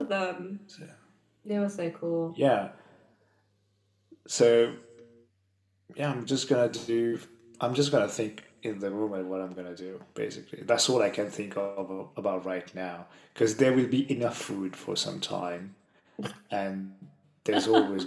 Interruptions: none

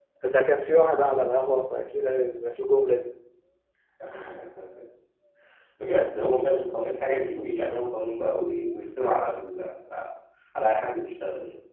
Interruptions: none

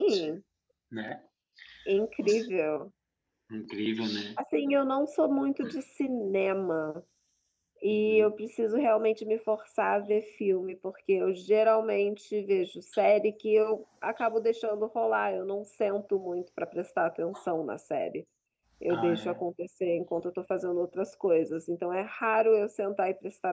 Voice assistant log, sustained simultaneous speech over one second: none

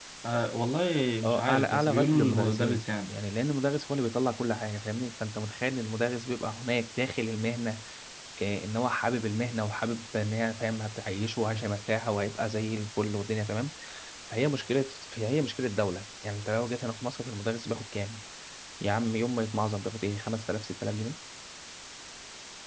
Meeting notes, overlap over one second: present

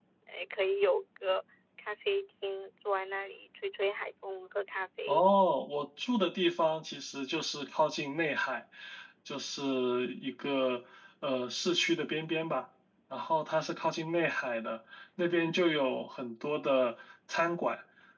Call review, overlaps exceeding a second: none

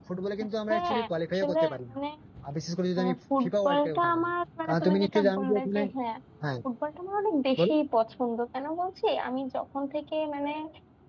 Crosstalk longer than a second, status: present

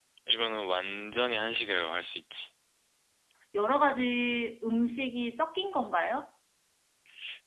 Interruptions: none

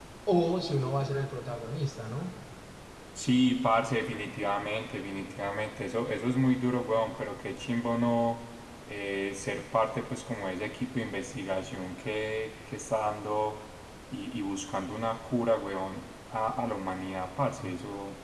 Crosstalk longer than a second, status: none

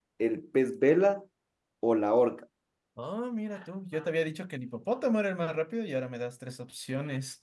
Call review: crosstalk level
none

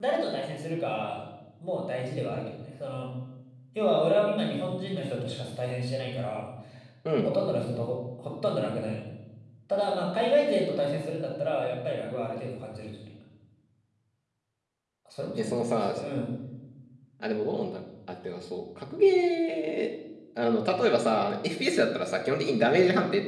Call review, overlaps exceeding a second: none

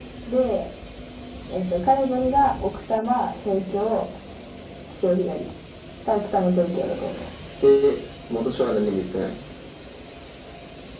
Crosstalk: none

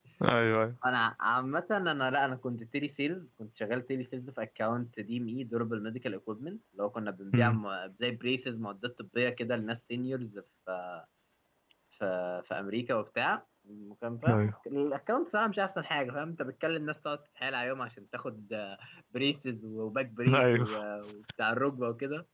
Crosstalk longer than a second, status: none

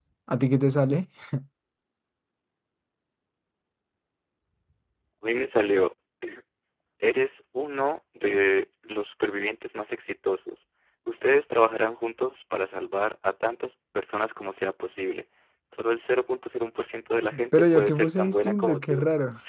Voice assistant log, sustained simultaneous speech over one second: present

